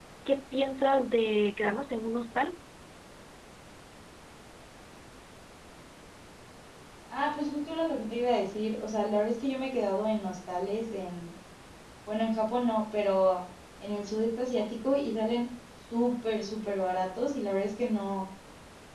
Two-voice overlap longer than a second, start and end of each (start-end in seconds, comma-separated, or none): none